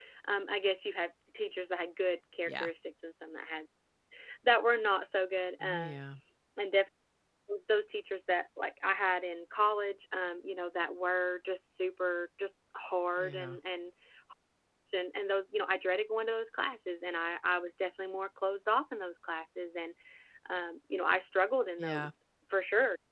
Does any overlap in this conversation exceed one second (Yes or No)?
No